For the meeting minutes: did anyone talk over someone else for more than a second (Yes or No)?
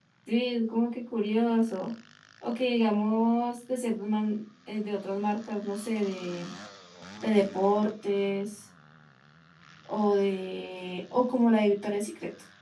No